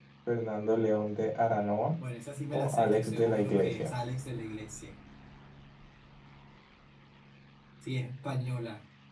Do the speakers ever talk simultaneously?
Yes, from 2.5 s

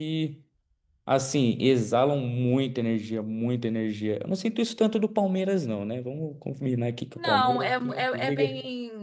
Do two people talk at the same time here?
Yes, from 7.2 s

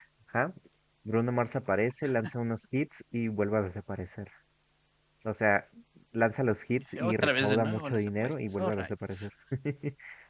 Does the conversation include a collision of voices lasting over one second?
Yes, from 7.0 s

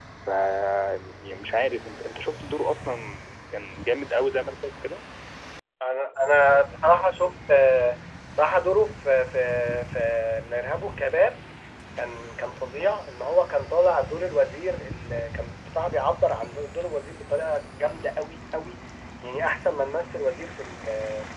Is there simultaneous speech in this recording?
No

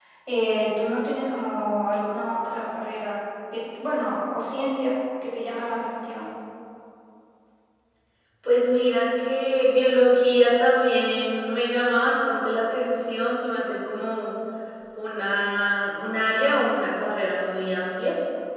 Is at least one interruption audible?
No

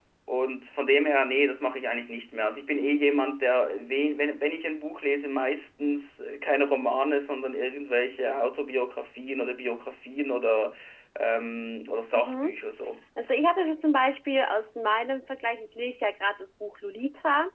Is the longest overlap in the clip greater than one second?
No

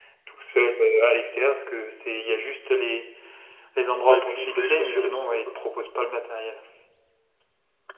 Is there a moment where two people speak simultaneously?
Yes, from 4.1 s

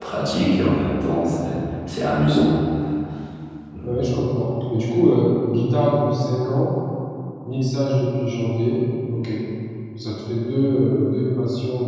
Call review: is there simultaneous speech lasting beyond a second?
No

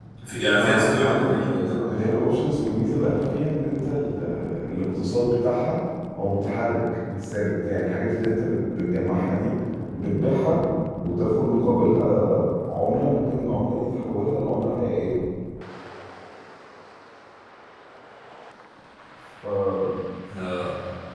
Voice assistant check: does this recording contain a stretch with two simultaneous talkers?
Yes, from 0.6 s

